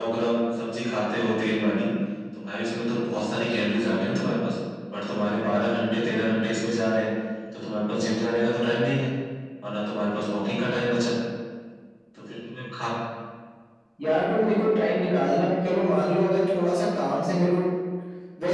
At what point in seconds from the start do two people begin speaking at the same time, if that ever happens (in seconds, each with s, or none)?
none